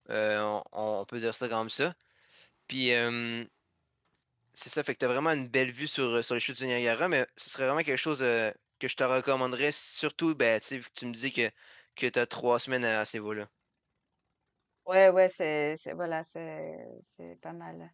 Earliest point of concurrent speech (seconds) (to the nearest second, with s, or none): none